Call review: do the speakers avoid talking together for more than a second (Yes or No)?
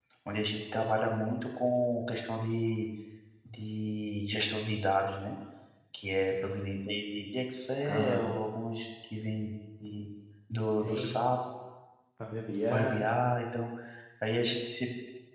Yes